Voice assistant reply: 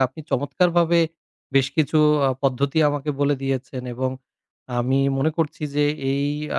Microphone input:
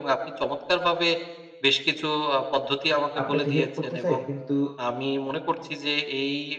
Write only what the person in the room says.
আপনাকে হেল্প করতে চাই কিন্তু

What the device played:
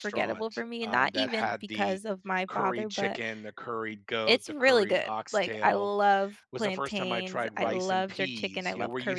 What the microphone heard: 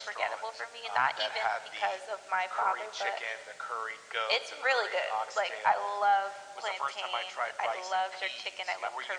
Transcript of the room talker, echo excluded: none

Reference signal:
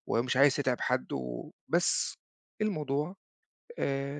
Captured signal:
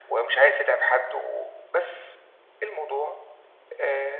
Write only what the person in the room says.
none

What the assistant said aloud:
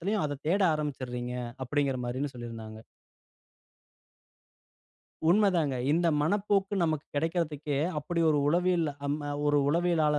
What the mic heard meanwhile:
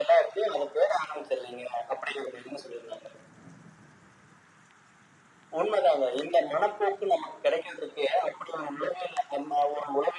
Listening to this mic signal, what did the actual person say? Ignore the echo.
none

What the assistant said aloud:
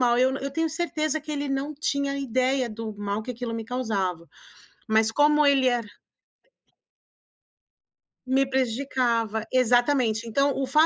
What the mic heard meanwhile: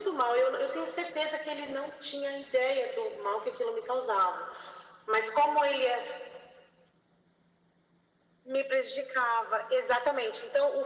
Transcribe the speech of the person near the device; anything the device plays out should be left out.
none

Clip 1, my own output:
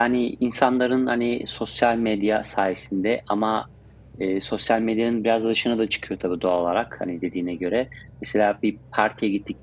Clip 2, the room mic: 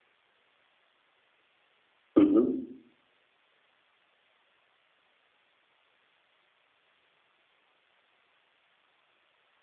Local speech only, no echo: Hı hı.

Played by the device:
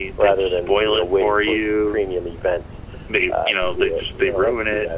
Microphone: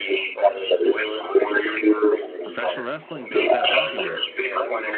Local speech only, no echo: professional wrestling is not that popular

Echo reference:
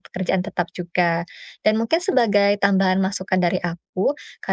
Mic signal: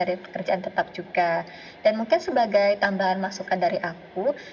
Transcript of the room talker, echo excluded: none

